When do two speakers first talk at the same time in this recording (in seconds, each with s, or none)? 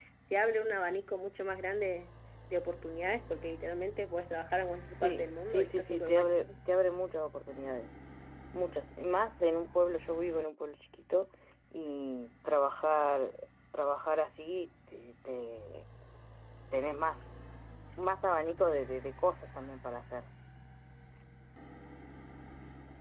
5.0 s